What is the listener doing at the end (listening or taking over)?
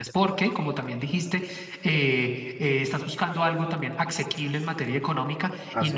listening